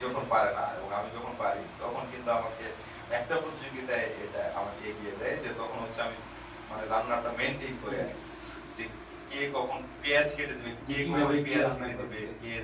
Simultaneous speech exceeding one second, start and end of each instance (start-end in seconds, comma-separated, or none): 10.9-12.1